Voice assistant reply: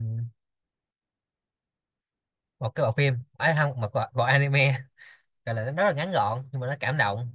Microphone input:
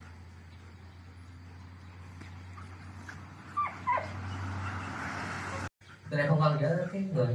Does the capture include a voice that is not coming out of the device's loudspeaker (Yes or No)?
Yes